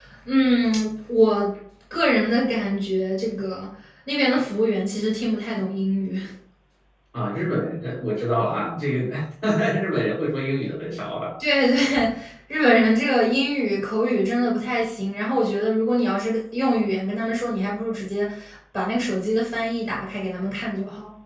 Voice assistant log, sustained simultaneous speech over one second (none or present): none